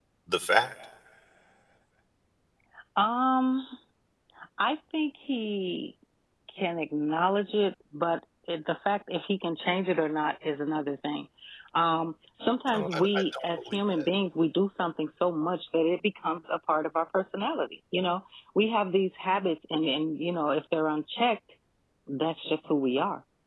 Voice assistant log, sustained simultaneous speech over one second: present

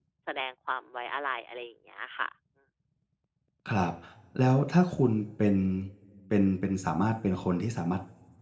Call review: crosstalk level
none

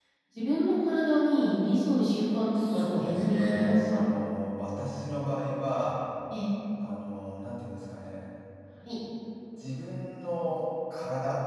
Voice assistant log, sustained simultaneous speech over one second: present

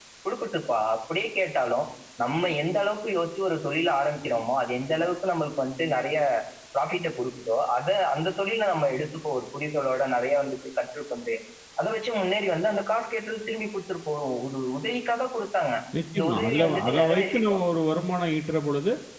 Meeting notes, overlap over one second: present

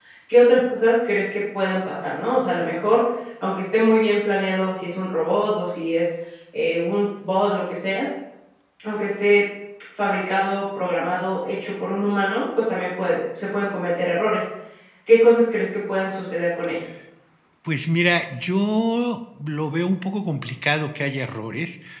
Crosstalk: none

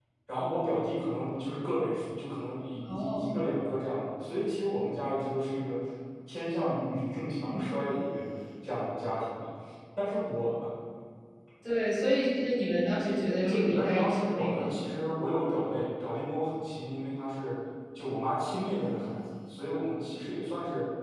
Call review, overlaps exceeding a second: present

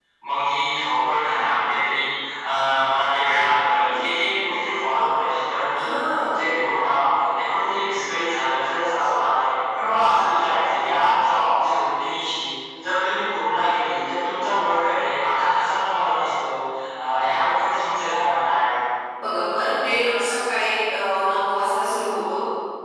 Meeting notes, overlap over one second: none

